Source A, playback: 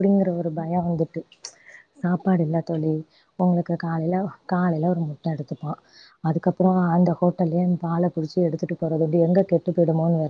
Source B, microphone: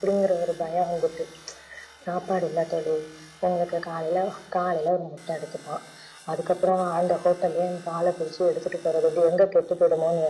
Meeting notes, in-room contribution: none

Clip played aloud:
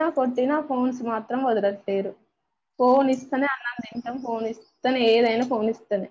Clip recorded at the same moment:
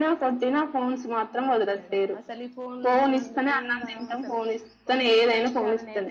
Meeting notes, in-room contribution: present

